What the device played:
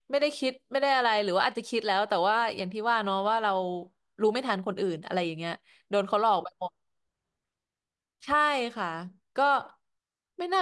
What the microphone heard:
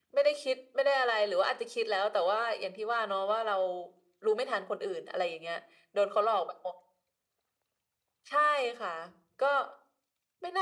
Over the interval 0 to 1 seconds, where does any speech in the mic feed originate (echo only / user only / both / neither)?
echo only